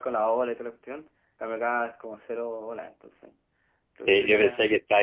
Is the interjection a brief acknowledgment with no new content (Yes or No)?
No